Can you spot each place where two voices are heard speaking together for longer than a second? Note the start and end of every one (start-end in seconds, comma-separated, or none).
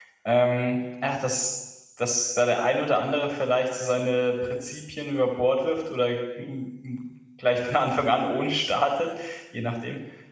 none